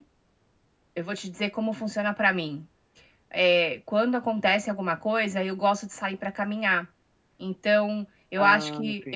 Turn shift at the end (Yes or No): No